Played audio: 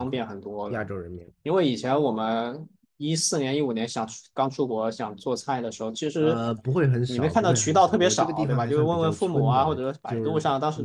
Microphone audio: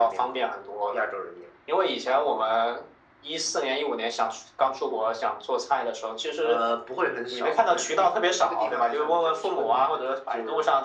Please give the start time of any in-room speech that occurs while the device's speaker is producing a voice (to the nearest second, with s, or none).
none